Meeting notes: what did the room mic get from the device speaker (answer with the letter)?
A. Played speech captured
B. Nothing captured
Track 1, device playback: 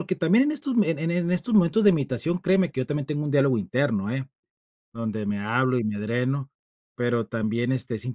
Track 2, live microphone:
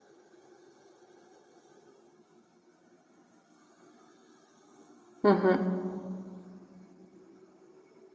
B